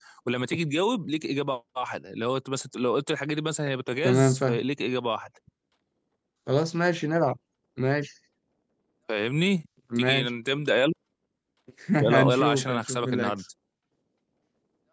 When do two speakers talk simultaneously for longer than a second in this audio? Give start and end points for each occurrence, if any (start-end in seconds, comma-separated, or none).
12.1-13.3